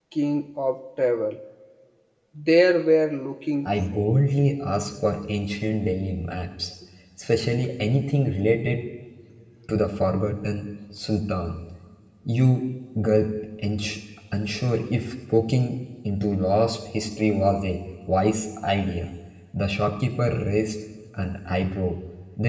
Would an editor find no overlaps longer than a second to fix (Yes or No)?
Yes